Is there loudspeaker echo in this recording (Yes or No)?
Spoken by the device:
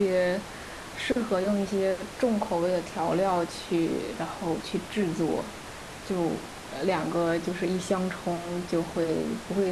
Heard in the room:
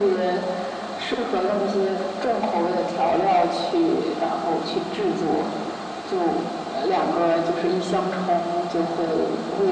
Yes